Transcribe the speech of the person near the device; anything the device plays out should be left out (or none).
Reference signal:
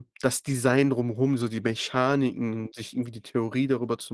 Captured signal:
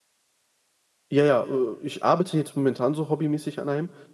Ja, ja, äh, ich arbeite jetzt momentan so hobbymäßig an einem